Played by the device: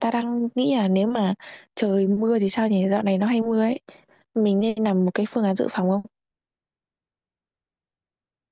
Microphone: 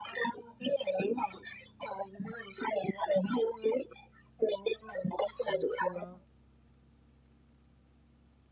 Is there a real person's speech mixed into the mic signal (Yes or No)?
Yes